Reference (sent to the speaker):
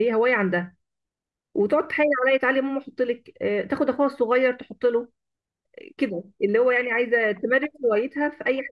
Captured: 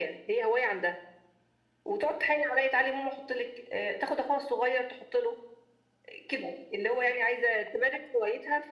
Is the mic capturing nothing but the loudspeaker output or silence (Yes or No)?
Yes